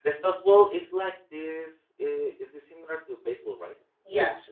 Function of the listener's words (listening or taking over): taking over